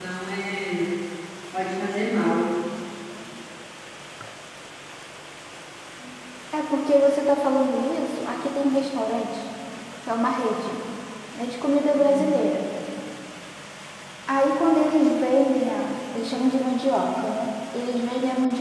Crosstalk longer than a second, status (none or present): none